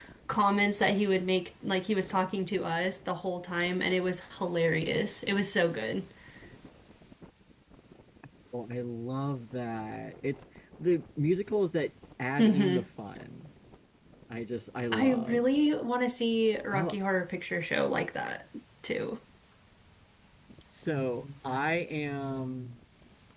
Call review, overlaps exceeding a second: none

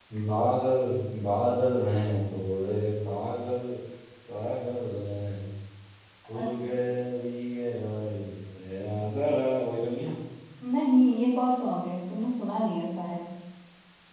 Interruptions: none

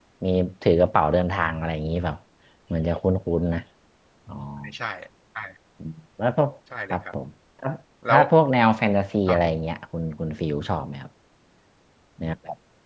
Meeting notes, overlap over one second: none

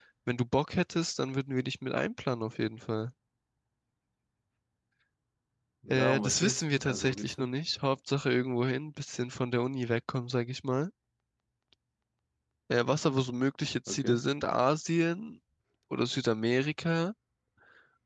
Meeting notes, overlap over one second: present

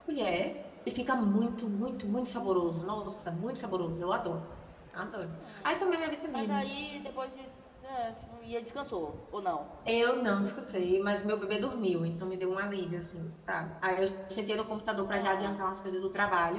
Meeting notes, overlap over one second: none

